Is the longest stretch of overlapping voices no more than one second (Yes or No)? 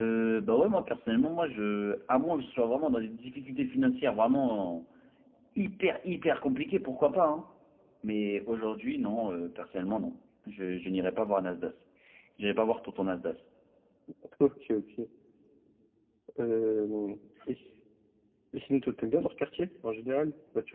Yes